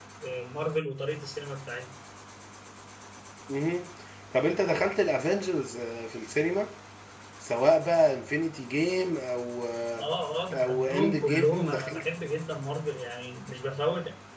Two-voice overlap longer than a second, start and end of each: 10.5-12.1

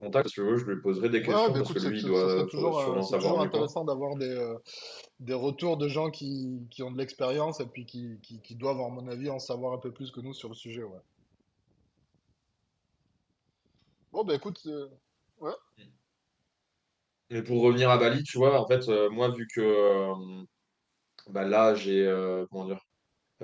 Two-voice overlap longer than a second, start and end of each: 1.2-3.7

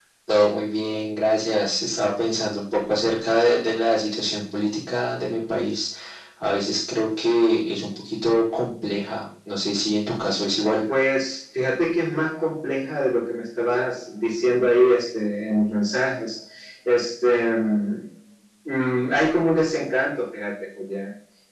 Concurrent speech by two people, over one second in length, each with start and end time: none

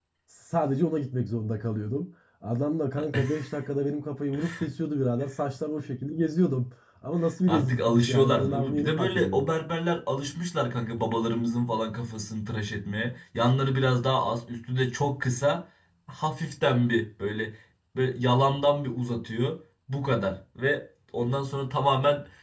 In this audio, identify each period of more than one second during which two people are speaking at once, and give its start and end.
7.5-9.5

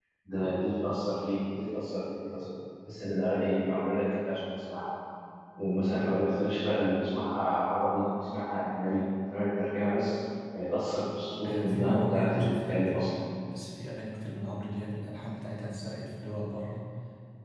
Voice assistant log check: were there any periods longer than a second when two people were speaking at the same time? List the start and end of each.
11.4-13.1

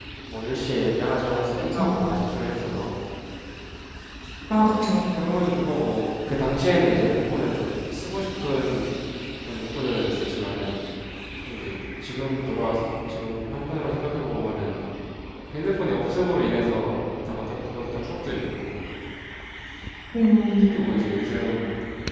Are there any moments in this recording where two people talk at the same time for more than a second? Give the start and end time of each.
none

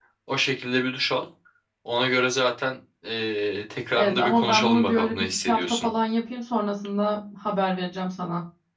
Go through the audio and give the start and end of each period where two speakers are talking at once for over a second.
4.0-5.9

